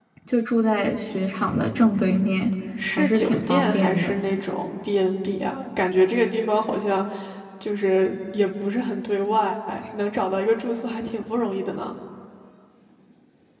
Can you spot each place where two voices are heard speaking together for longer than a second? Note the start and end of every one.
2.9-4.2

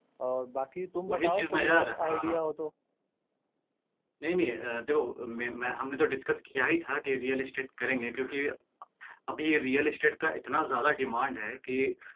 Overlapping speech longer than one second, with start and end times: 1.1-2.4

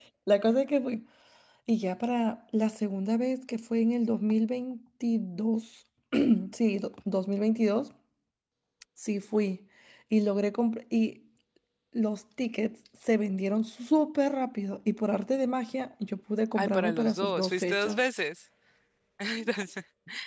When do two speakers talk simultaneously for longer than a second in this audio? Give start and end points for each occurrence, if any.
16.6-18.0

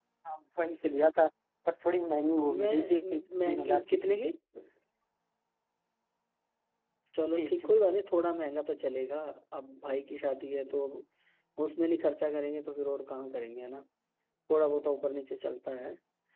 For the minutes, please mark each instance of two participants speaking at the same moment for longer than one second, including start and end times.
2.6-4.2

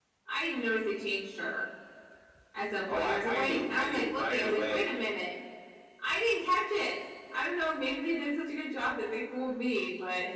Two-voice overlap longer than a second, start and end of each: 2.9-4.8

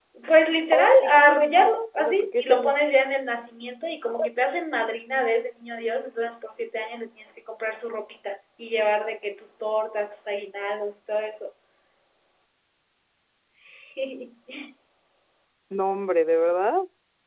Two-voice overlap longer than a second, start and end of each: 0.7-2.8

